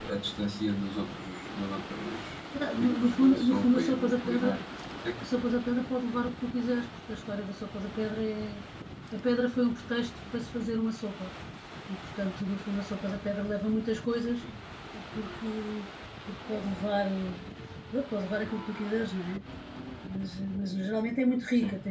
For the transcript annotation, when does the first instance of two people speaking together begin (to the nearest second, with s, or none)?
3 s